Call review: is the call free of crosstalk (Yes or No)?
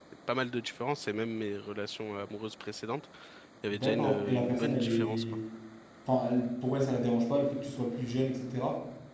No